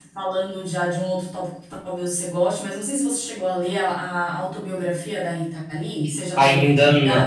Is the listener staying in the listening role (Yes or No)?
No